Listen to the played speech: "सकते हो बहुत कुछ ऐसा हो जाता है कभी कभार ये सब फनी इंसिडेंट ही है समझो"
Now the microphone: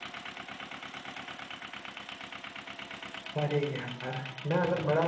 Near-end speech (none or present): present